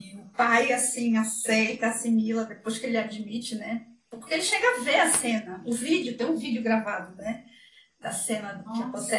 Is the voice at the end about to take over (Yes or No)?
No